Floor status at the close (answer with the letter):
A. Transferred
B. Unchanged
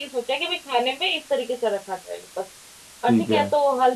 B